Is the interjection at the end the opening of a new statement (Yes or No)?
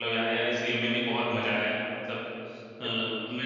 No